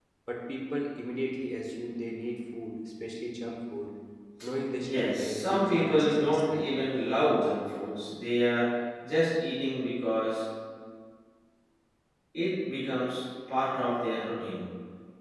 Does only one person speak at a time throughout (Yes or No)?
No